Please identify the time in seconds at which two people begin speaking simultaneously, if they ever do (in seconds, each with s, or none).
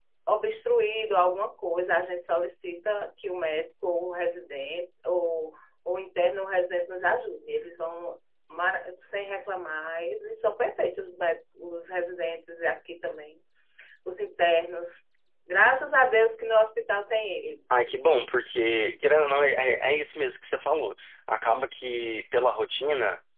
none